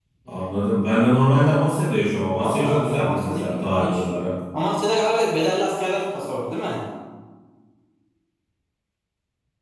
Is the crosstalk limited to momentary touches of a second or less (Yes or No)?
No